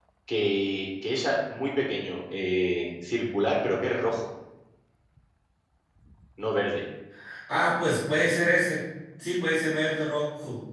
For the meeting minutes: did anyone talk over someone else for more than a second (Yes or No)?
No